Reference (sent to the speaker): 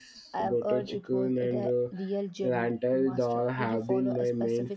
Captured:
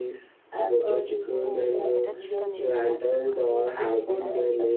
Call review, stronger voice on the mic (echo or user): echo